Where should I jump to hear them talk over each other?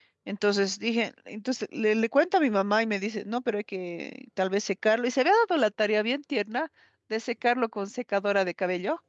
none

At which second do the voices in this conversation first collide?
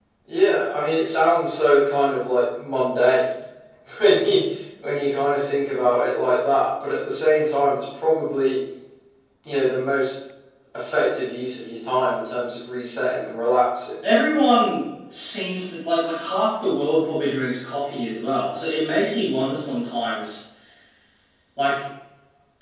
none

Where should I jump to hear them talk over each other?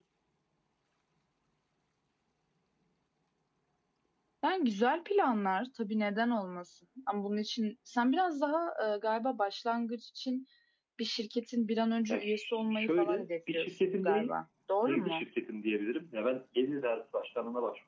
12.1 s

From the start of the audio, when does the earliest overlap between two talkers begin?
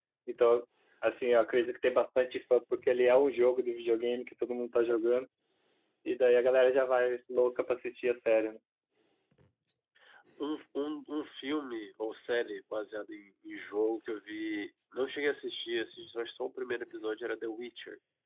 none

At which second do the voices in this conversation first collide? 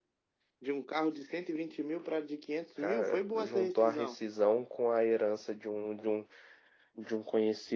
2.8 s

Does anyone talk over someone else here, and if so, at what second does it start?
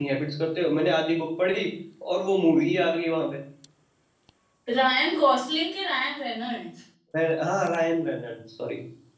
none

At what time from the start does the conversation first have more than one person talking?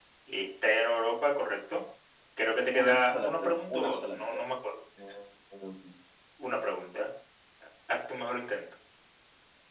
2.7 s

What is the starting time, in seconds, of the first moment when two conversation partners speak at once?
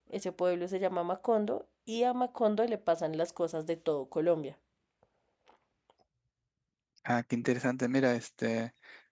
none

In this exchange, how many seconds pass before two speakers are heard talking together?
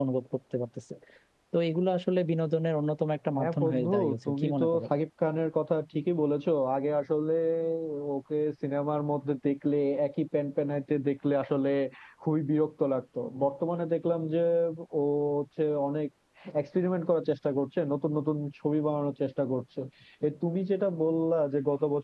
3.3 s

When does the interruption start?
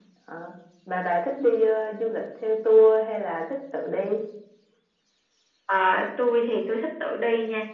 none

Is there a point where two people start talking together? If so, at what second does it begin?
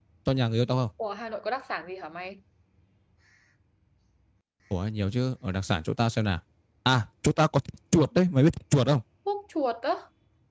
none

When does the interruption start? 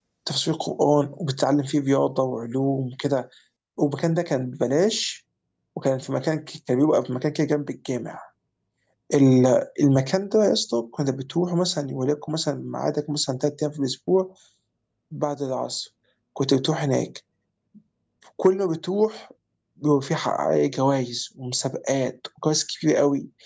none

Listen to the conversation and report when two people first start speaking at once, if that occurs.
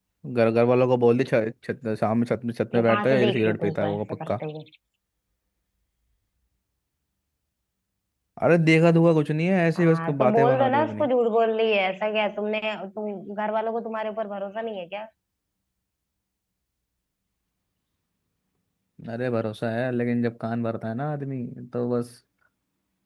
2.8 s

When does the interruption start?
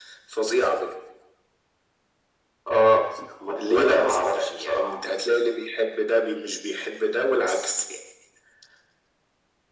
3.7 s

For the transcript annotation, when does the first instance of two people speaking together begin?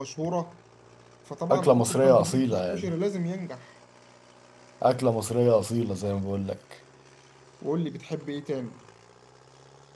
1.5 s

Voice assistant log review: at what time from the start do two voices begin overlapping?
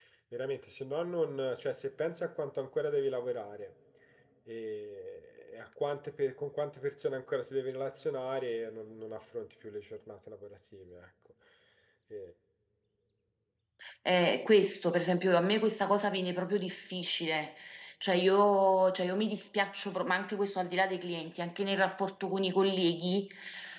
none

